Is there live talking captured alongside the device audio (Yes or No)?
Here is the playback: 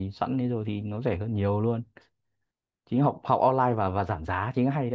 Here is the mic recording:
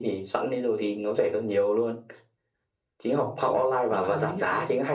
Yes